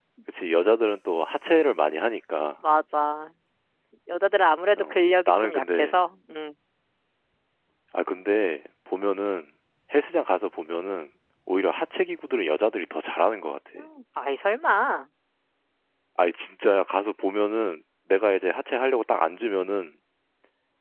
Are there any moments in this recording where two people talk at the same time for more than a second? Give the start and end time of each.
4.8-6.0

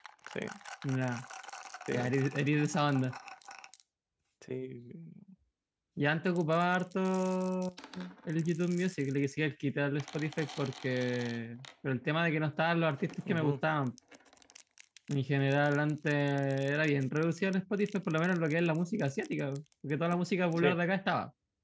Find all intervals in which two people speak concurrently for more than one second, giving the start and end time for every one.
none

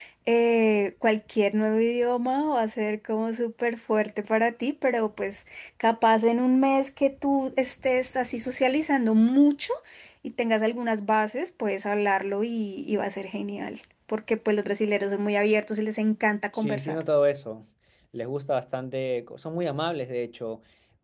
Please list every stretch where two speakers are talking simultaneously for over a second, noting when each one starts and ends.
none

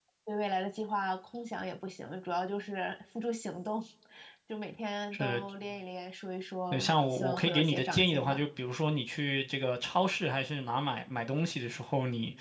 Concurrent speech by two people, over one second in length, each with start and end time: 6.7-8.4

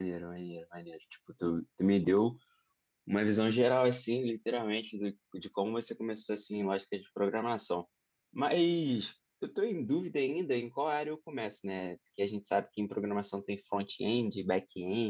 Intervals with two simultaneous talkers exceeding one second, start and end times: none

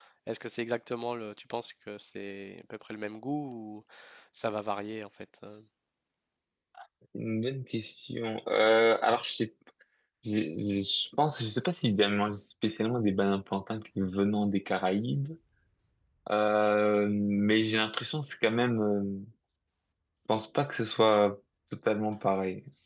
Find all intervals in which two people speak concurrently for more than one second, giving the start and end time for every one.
none

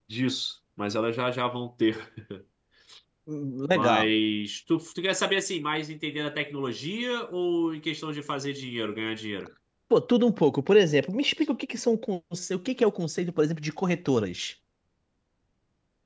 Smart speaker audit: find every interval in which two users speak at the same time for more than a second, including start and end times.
none

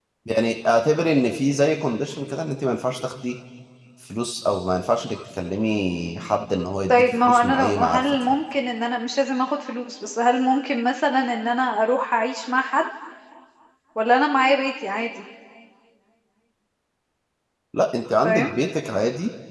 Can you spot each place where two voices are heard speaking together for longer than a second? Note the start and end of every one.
6.9-8.3

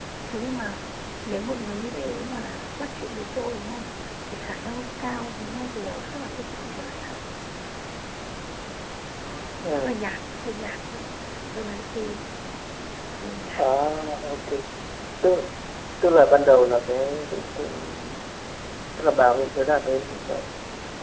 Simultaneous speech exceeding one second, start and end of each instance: none

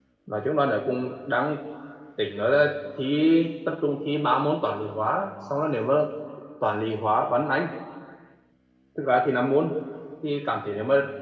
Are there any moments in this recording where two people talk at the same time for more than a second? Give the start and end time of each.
none

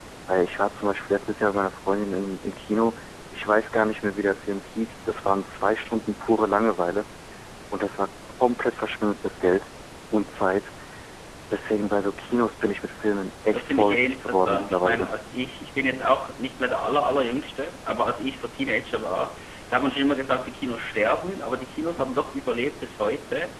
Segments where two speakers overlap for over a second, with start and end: 13.5-15.1

